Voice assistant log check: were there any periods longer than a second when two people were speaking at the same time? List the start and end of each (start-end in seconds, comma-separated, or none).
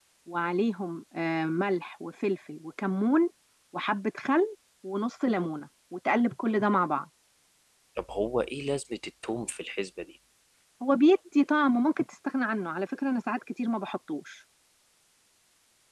none